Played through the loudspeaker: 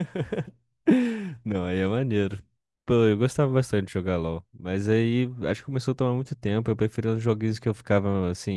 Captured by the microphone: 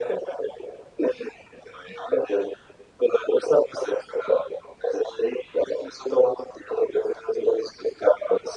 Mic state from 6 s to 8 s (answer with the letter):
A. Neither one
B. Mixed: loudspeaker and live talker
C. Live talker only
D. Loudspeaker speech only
D